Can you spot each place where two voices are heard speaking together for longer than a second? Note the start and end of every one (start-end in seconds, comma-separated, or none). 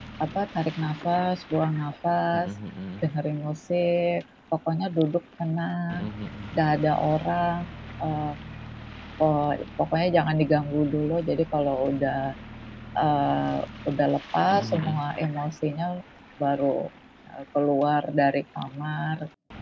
none